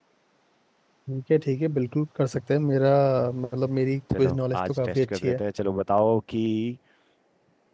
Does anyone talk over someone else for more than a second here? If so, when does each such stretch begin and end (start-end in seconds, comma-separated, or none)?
4.2-5.4